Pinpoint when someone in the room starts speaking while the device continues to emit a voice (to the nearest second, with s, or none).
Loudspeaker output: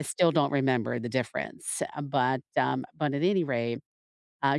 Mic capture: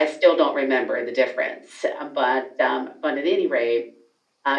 none